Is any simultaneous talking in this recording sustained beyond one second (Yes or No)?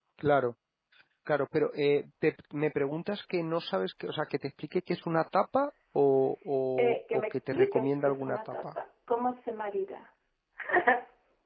Yes